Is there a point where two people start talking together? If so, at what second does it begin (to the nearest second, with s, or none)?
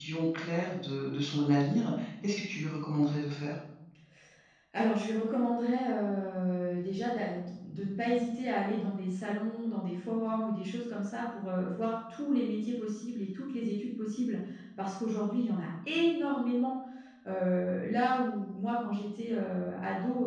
none